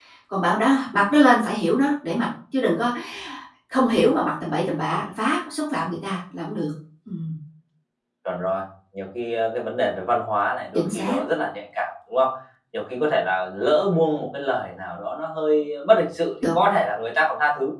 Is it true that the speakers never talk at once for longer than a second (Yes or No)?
Yes